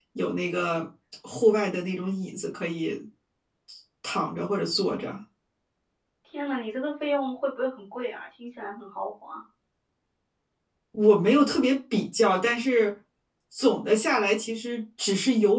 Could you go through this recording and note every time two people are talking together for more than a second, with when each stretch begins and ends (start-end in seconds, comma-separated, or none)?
none